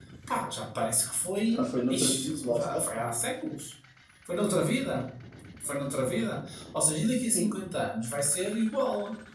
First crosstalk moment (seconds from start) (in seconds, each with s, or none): 1.5 s